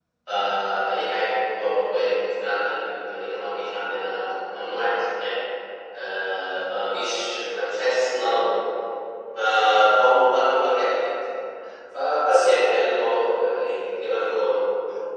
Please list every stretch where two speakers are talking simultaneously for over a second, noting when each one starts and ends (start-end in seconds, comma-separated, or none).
none